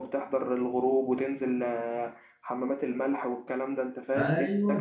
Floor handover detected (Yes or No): Yes